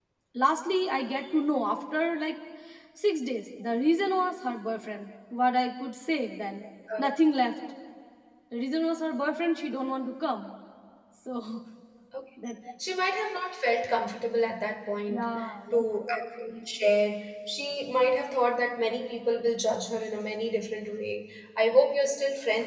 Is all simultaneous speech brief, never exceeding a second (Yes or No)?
Yes